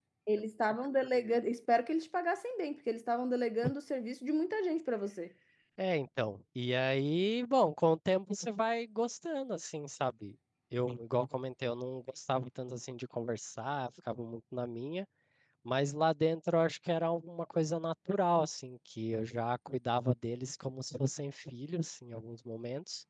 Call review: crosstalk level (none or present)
none